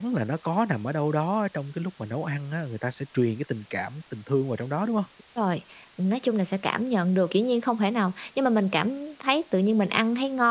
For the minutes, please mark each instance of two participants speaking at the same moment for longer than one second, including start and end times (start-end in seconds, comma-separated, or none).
none